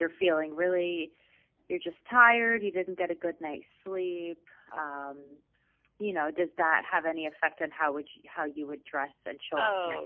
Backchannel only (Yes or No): No